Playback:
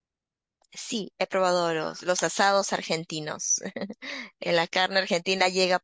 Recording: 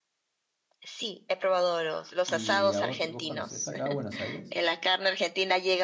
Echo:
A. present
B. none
A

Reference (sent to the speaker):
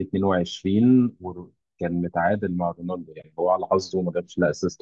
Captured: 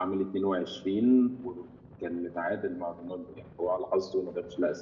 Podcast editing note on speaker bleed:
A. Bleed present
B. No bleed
A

